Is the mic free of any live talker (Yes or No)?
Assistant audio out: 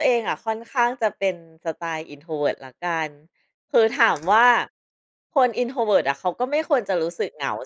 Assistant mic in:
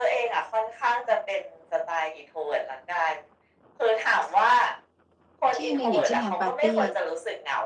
No